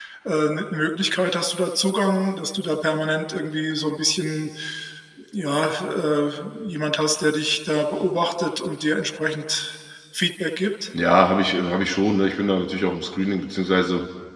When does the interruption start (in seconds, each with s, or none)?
none